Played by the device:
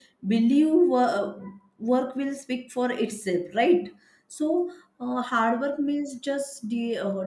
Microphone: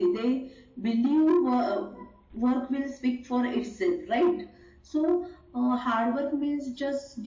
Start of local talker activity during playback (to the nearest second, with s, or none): none